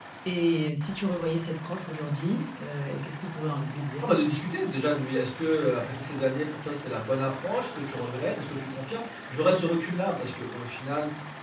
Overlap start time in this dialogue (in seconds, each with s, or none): none